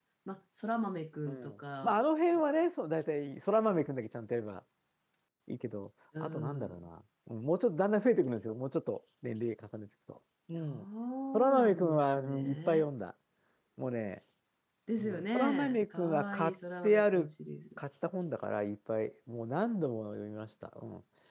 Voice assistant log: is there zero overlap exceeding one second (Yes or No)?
No